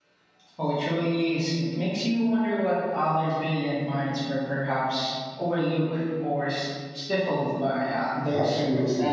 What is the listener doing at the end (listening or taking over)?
taking over